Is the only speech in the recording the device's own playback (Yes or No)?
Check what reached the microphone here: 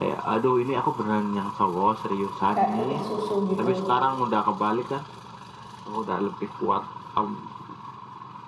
No